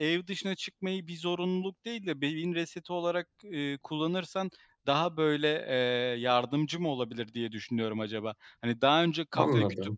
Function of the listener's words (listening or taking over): listening